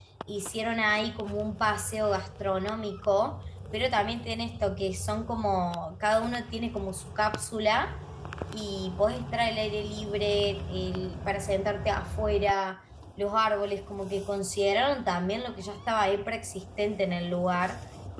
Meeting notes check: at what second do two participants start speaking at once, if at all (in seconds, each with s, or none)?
none